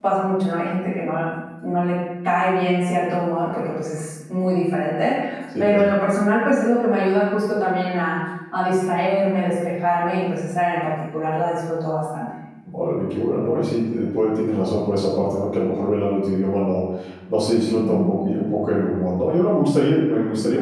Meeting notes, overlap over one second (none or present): none